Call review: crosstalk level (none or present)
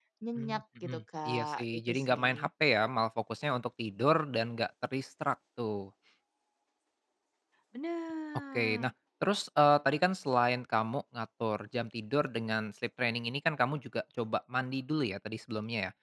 present